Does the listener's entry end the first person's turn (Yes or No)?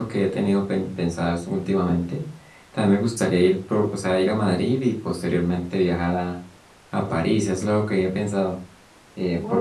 No